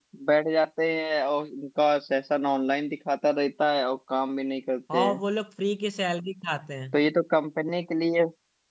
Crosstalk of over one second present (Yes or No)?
No